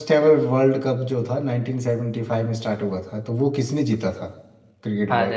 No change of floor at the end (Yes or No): No